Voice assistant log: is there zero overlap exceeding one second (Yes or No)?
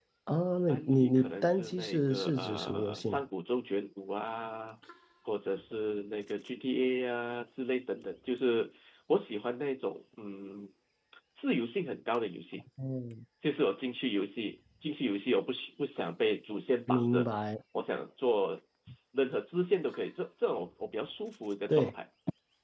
No